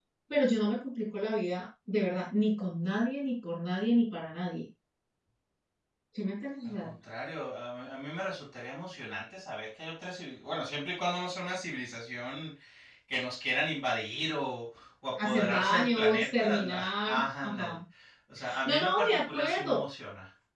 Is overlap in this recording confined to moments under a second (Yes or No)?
No